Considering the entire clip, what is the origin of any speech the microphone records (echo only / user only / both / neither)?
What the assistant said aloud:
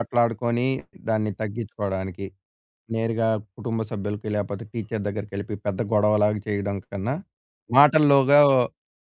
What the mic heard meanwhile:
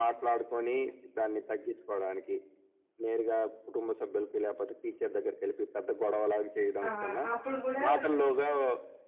both